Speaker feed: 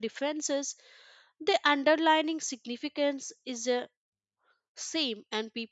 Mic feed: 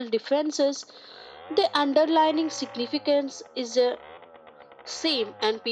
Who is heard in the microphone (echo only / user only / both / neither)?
echo only